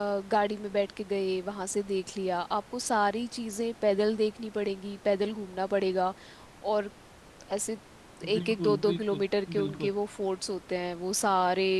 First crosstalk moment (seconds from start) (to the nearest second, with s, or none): 8 s